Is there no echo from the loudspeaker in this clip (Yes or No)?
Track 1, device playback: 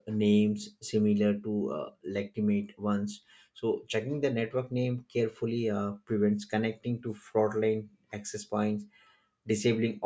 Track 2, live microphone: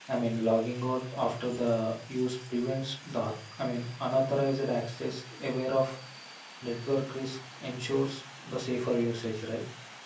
Yes